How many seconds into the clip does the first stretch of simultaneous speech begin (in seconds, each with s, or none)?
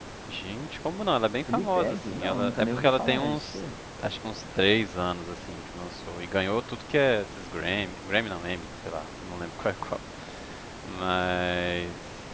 1.5 s